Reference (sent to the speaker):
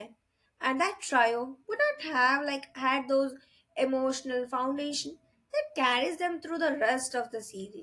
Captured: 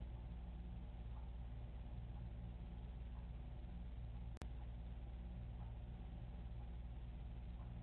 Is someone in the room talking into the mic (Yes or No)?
No